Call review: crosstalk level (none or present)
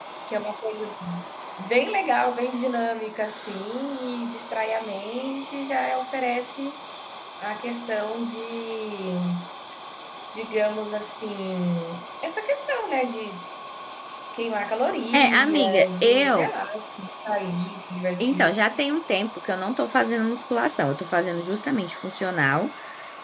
present